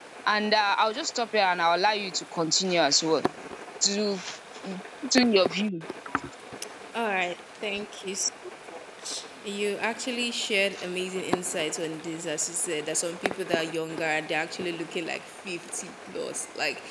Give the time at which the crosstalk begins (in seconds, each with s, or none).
none